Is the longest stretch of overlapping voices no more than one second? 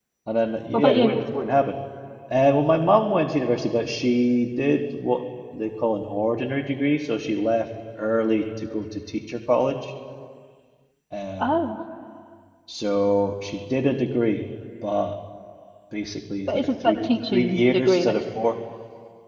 No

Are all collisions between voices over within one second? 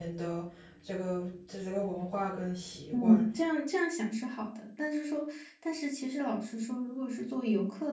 Yes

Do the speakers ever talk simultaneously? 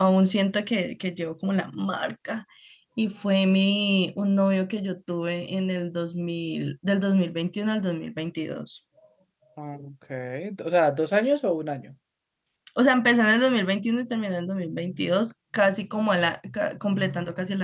No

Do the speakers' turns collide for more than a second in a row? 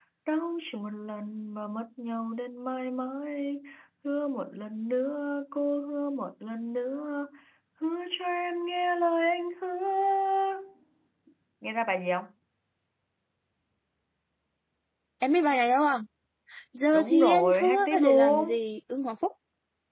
Yes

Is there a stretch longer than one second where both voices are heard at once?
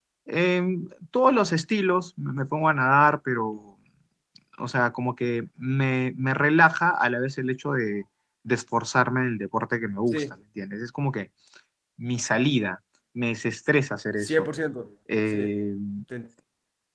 No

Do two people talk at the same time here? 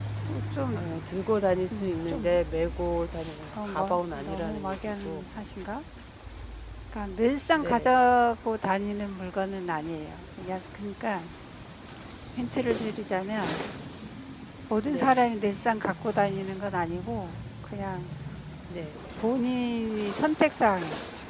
Yes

